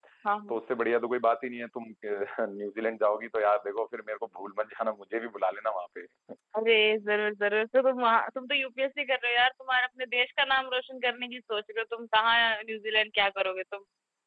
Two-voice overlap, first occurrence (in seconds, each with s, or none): none